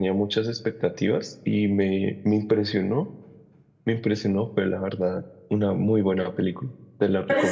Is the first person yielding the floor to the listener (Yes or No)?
Yes